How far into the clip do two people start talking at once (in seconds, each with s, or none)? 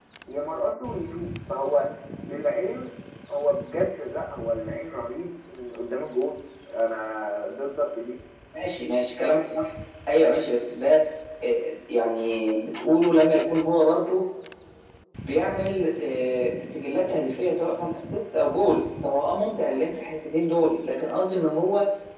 none